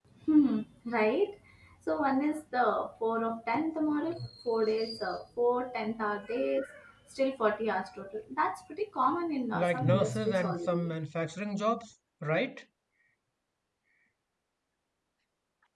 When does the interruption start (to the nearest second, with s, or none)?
10 s